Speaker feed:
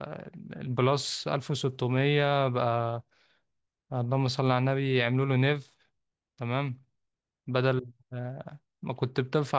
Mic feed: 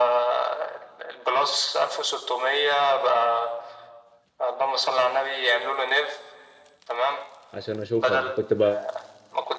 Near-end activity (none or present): present